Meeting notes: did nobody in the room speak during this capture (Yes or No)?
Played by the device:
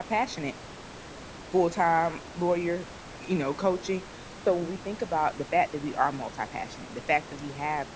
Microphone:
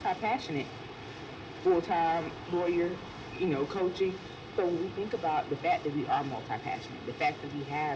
Yes